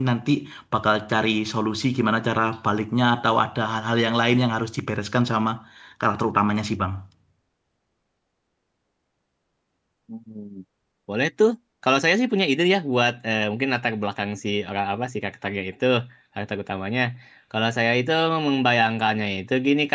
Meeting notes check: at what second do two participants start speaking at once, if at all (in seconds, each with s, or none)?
none